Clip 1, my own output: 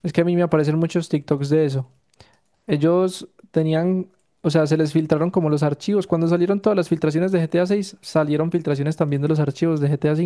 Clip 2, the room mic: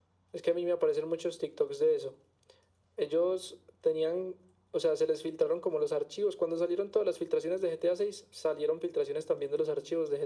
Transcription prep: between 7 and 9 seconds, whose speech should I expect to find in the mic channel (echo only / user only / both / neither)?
echo only